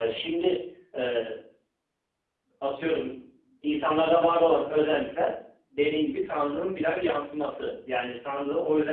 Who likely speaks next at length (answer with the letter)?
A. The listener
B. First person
B